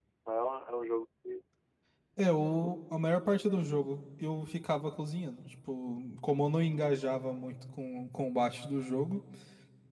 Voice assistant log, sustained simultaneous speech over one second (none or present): none